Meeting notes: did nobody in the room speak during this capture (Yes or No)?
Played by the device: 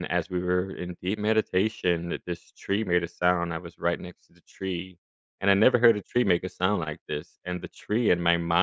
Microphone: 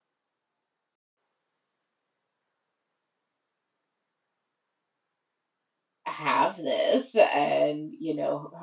No